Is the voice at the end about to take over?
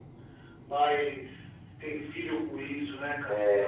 Yes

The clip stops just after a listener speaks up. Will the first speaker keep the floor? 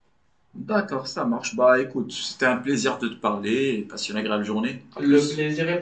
No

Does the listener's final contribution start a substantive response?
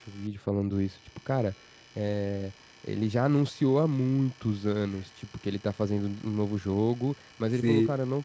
No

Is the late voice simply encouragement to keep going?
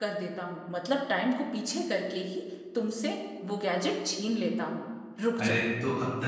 No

